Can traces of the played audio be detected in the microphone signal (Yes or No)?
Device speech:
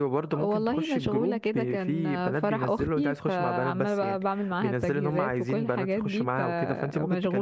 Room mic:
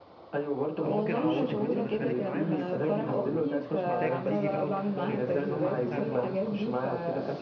Yes